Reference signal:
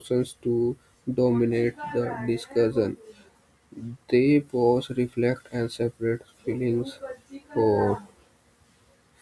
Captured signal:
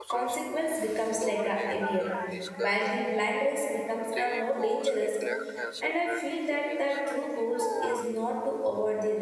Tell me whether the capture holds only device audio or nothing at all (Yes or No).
No